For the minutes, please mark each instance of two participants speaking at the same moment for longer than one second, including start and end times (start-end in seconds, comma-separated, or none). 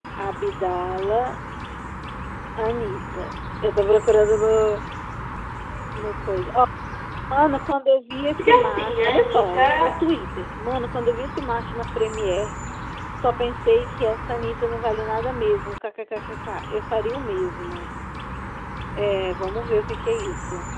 8.4-9.9